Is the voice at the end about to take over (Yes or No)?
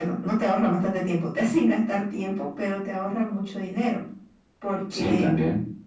No